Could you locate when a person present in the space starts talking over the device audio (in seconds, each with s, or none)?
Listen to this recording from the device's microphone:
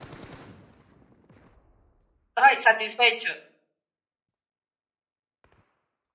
2.3 s